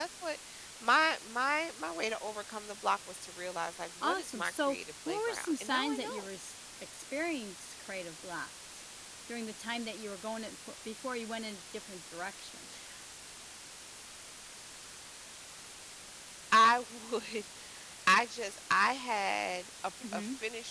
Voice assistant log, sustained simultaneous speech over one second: present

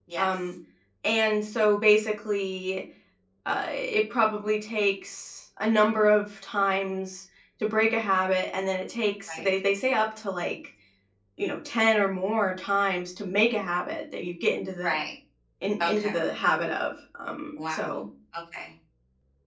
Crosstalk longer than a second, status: none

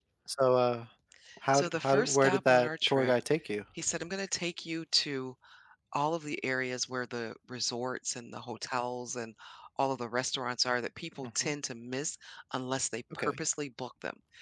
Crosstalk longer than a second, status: present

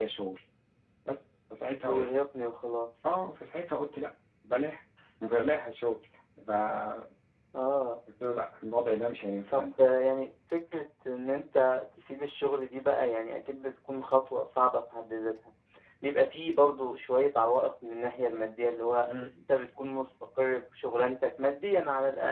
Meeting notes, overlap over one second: none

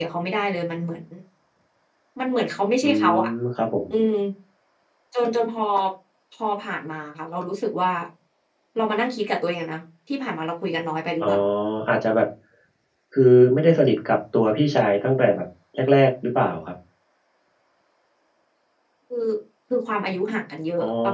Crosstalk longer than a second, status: none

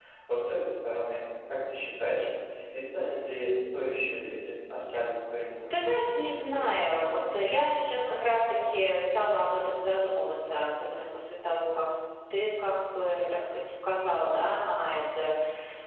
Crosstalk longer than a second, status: none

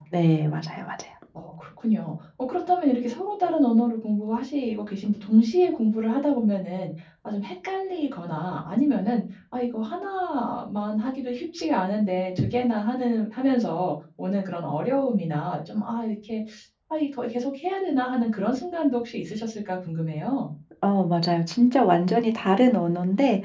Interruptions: none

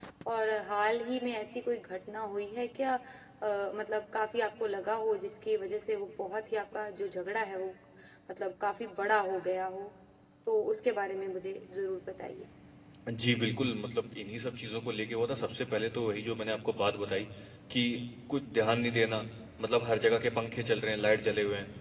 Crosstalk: none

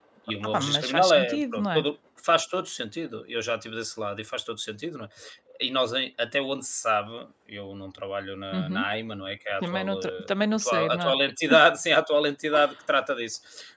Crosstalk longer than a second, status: present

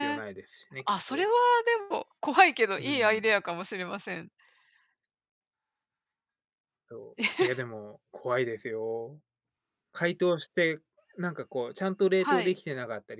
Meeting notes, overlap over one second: none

